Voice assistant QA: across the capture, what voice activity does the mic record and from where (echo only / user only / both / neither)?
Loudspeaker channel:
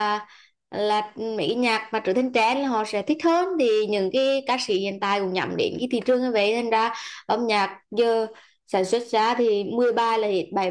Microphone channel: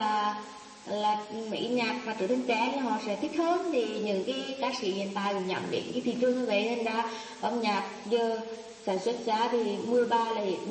echo only